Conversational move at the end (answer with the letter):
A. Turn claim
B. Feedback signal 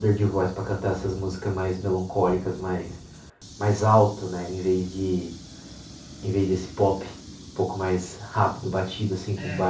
A